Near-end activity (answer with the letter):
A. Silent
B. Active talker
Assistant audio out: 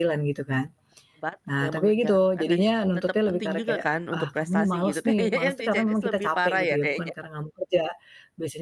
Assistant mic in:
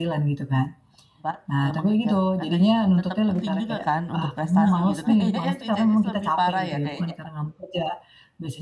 B